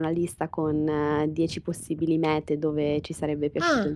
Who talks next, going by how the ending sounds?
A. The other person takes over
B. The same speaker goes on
B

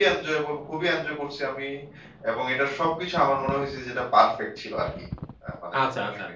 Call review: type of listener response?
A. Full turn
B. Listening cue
A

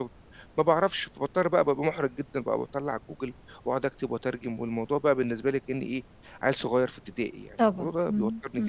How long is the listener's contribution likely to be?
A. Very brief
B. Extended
B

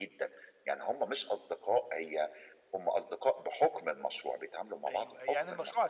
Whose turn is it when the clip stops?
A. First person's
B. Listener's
B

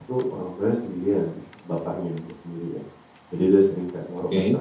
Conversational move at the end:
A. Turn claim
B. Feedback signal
B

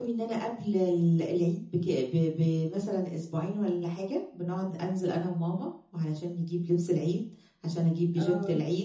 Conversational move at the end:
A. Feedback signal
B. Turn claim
A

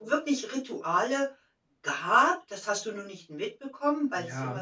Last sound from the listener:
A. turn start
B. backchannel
B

